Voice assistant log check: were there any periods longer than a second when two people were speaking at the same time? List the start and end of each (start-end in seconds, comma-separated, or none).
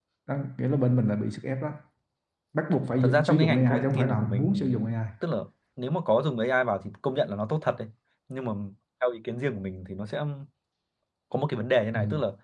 3.0-4.9